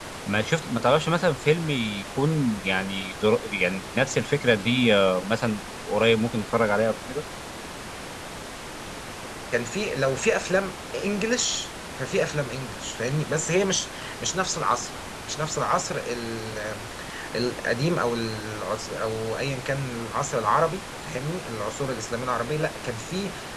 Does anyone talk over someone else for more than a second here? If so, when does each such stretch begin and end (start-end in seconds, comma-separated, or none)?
none